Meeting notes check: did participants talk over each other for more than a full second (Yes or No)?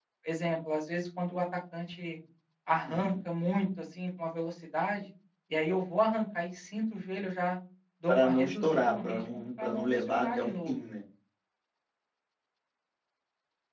Yes